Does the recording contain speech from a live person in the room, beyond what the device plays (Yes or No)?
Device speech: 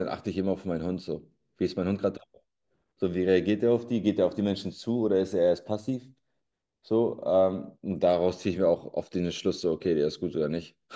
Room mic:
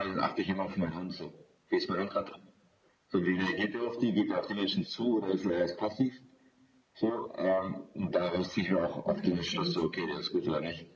Yes